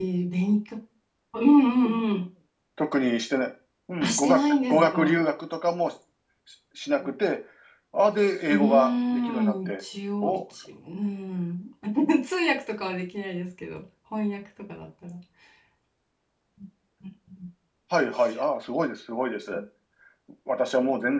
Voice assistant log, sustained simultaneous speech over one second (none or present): present